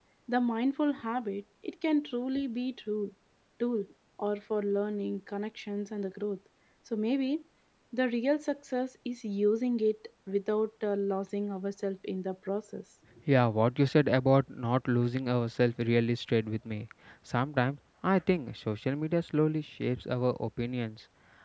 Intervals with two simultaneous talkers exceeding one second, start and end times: none

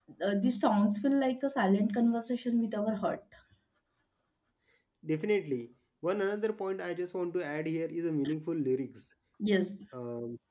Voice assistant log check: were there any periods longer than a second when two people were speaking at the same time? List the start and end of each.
none

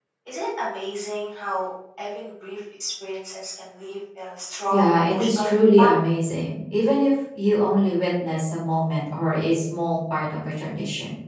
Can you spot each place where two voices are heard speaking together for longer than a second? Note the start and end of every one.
4.7-5.9

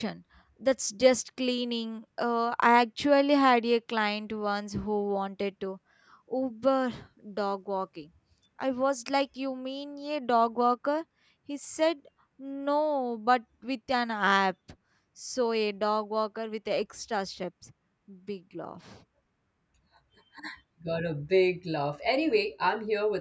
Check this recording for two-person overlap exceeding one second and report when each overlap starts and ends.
none

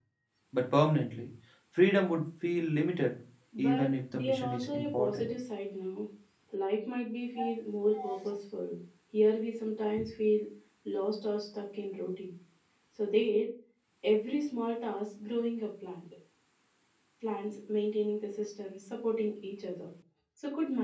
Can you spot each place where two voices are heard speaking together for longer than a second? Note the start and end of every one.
3.6-5.3

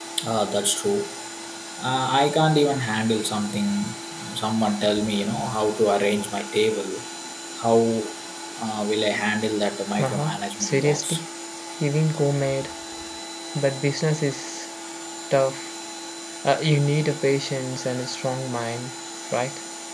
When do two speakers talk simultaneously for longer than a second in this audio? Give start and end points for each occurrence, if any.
10.0-11.2

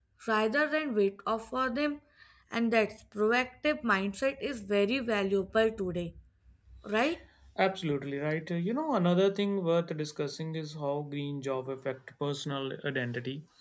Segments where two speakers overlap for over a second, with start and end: none

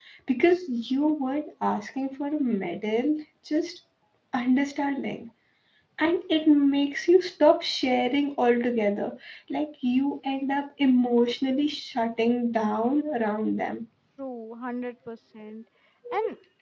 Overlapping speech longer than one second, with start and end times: none

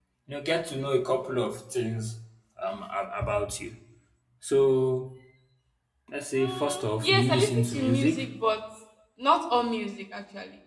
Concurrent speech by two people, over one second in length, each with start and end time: 6.3-8.2

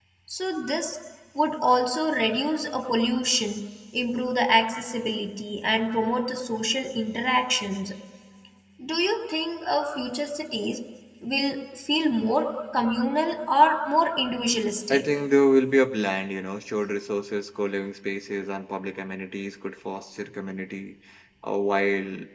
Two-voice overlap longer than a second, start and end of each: none

